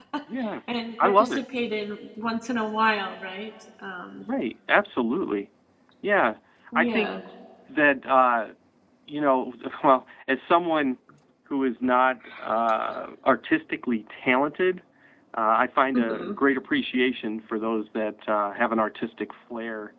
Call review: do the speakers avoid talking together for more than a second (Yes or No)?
Yes